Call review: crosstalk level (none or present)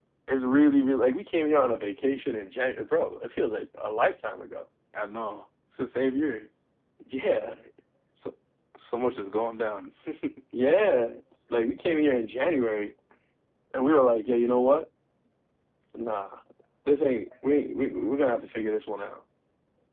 none